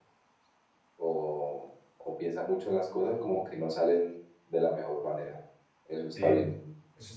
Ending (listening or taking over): taking over